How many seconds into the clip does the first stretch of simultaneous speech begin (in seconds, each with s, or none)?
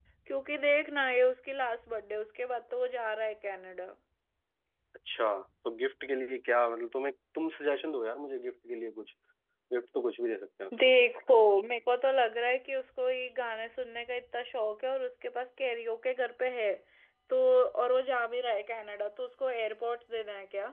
none